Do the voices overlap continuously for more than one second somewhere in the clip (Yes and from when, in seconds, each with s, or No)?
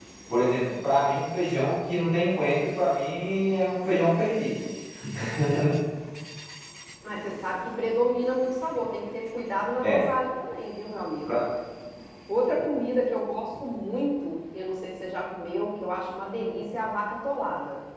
No